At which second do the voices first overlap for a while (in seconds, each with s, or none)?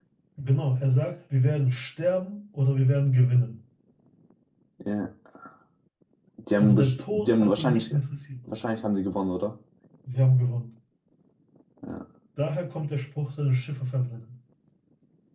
6.6 s